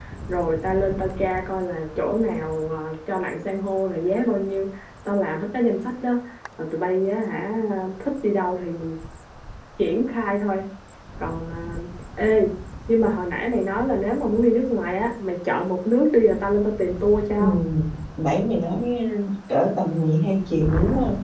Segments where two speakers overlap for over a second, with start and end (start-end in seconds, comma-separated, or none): none